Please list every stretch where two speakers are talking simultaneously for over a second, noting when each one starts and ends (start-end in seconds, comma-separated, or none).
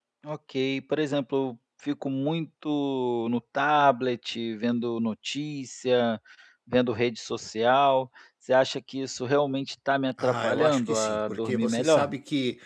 10.2-12.1